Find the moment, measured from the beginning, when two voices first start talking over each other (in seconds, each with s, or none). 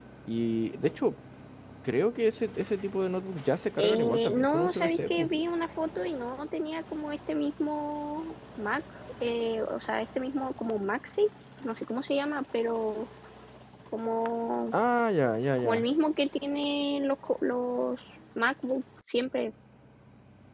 3.8 s